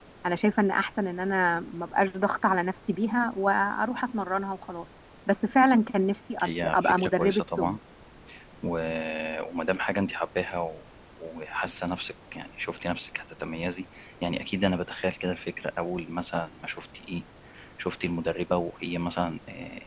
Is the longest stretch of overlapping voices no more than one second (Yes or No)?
No